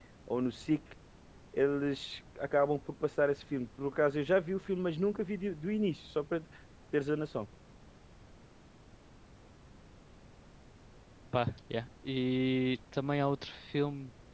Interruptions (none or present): none